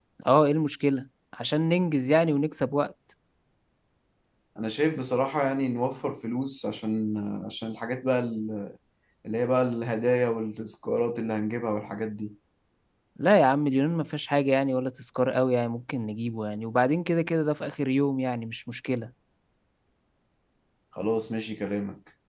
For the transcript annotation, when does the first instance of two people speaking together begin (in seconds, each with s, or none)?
none